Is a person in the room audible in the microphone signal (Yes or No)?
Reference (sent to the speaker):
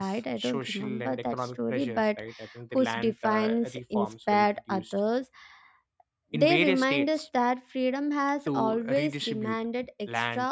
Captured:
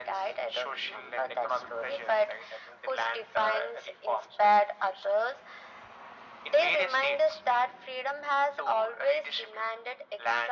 No